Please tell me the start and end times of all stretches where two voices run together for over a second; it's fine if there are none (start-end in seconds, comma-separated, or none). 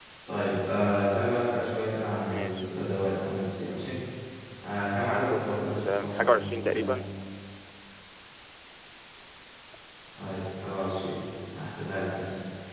5.1-6.9